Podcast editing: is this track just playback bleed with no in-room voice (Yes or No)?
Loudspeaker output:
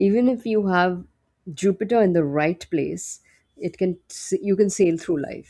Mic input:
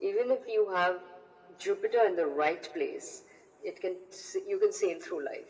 Yes